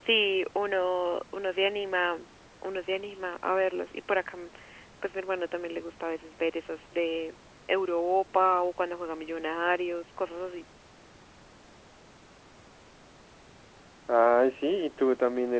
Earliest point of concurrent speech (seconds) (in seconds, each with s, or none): none